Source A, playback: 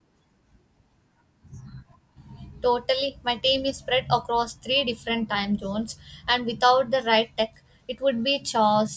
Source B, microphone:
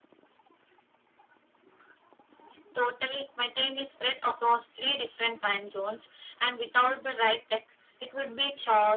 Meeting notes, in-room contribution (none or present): none